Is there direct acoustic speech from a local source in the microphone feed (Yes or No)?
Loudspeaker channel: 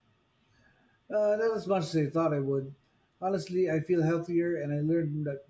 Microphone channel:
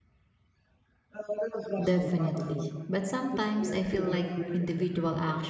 Yes